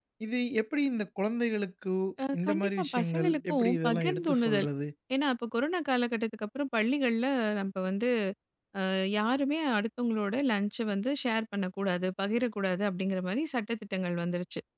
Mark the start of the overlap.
2 s

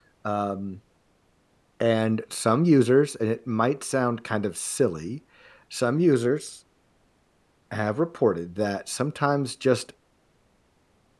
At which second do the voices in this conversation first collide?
none

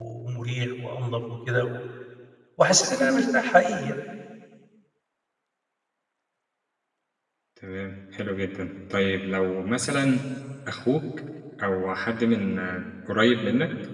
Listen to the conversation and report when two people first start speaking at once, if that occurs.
none

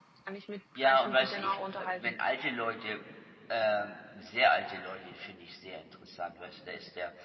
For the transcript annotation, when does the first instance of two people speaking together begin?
1 s

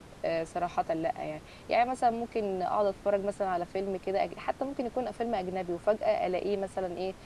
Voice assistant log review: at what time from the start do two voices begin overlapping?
none

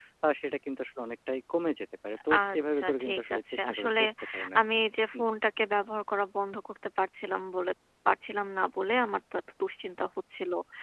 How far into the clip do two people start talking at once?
2 s

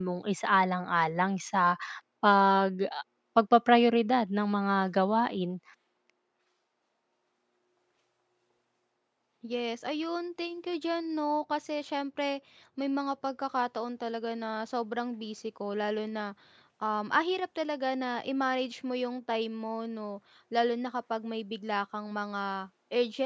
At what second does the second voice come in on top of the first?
none

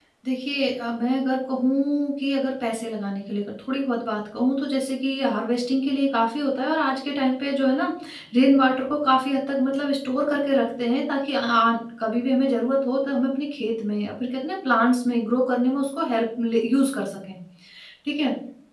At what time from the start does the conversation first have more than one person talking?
none

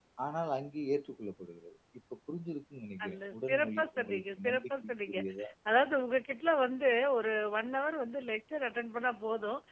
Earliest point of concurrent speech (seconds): 3 s

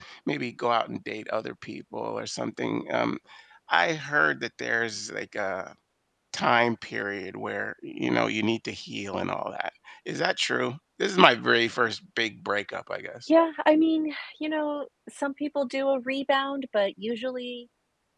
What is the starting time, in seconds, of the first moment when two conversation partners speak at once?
none

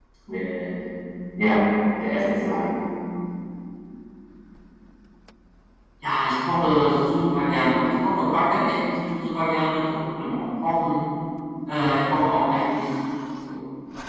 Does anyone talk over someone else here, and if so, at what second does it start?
none

